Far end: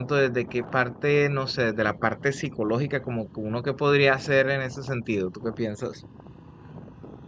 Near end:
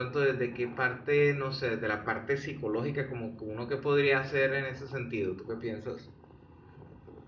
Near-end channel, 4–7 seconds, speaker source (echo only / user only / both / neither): echo only